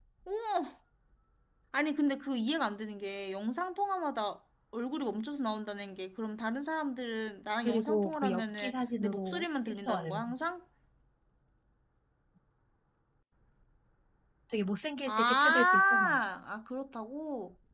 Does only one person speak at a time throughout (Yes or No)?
No